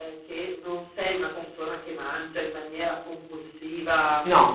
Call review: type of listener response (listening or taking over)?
listening